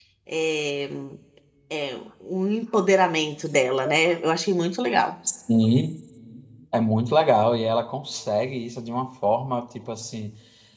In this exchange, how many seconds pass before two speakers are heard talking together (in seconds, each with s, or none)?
none